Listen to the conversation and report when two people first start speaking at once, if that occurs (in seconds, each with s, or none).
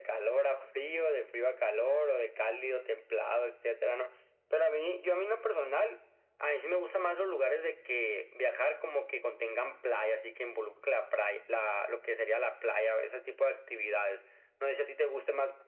none